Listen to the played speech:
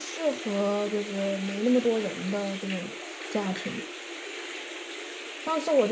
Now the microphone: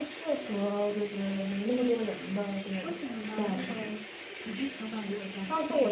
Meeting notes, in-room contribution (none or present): present